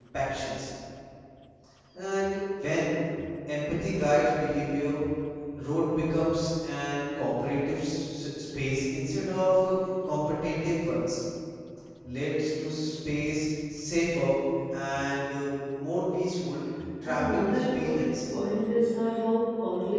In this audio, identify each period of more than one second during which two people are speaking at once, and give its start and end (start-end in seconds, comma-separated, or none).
17.0-18.3